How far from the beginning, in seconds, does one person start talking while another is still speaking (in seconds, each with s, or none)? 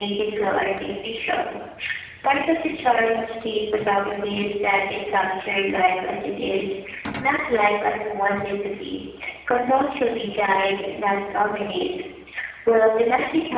none